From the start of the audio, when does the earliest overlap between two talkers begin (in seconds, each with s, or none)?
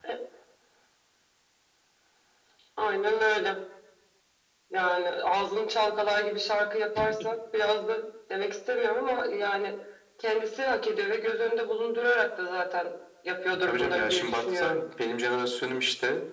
13.5 s